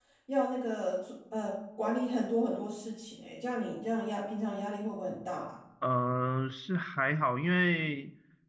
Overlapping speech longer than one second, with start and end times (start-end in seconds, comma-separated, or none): none